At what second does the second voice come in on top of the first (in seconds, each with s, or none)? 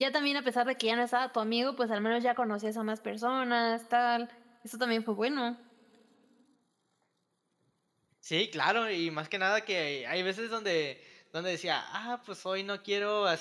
none